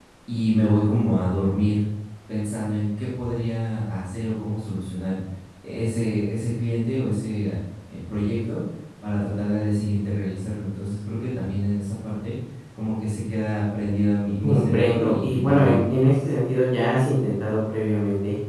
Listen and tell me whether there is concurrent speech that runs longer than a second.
Yes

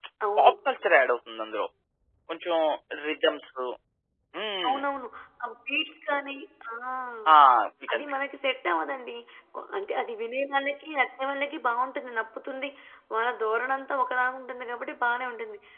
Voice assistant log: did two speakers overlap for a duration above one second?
No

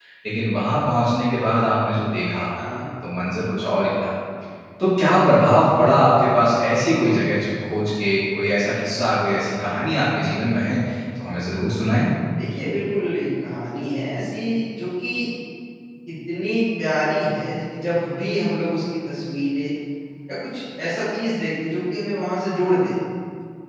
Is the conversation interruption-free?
Yes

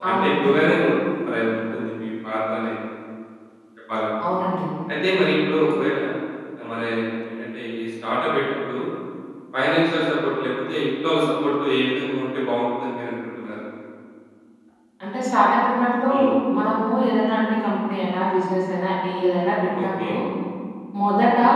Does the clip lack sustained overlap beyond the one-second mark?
Yes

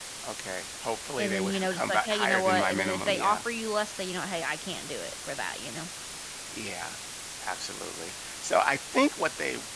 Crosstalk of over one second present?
Yes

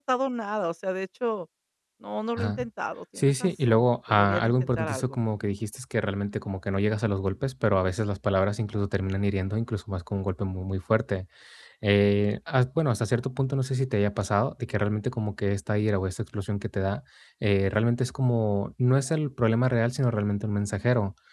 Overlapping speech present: Yes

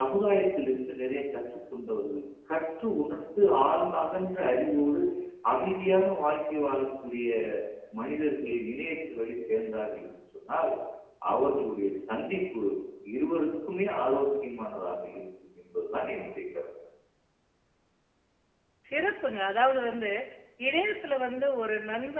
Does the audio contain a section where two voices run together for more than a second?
No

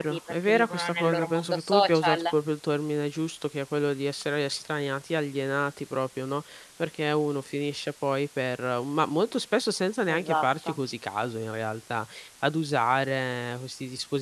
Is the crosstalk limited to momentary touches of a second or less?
No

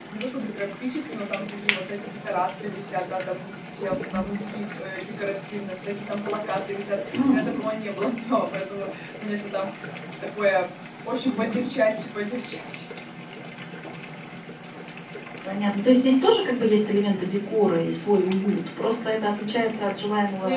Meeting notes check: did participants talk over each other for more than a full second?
No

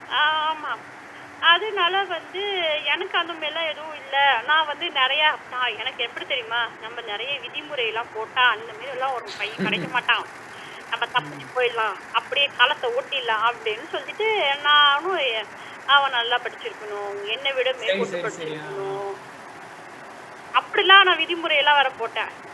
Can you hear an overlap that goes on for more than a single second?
Yes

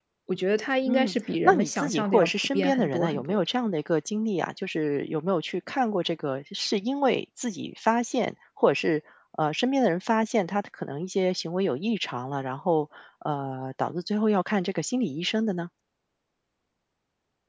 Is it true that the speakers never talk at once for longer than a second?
No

